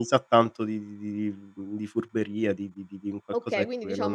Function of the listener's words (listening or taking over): taking over